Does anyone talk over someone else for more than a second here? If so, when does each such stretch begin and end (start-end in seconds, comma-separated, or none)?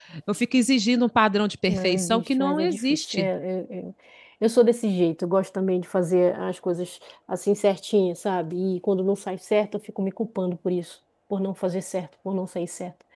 1.7-3.3